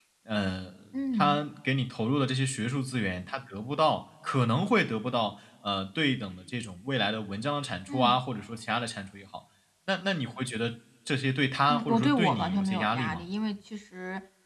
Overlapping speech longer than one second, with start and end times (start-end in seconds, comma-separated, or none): 11.7-13.2